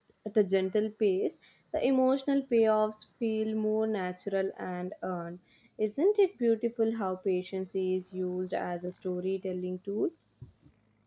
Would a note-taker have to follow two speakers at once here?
No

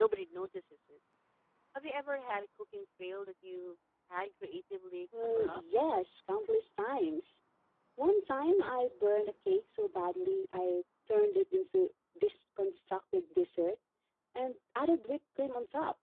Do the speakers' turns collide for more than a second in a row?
No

